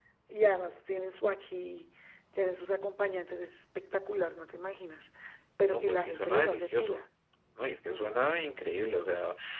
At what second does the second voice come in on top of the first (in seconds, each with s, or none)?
5.7 s